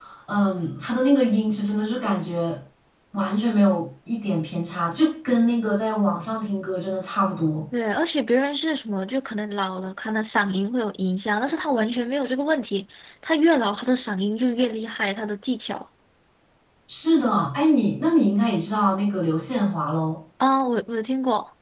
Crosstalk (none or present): none